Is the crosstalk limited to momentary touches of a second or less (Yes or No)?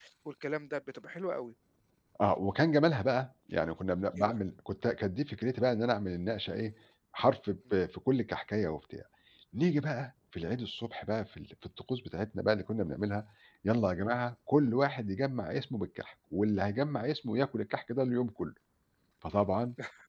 Yes